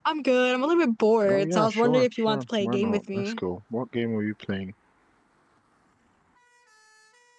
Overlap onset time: 1.3 s

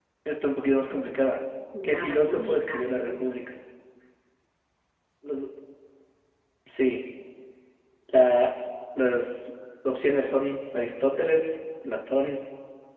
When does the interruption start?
1.7 s

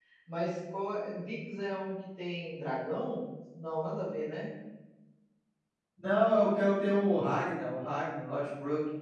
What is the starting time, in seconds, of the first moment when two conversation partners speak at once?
none

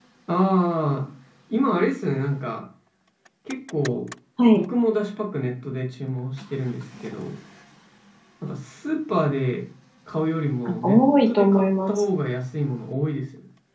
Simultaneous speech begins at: 10.6 s

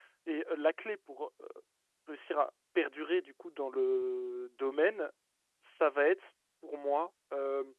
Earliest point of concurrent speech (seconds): none

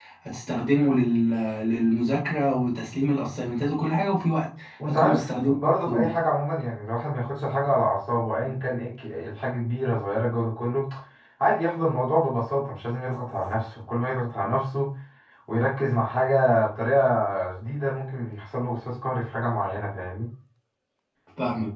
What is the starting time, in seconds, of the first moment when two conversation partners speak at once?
4.8 s

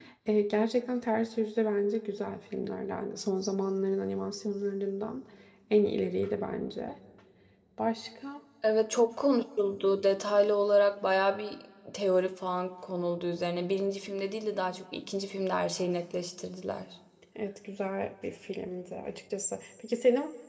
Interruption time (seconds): none

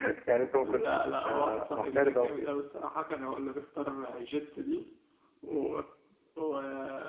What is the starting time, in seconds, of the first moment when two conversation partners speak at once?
0.6 s

